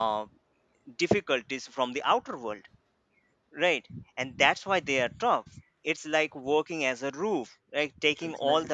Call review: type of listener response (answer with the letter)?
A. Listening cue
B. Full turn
A